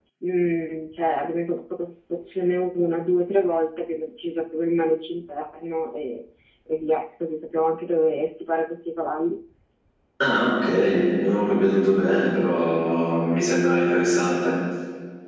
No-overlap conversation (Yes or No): Yes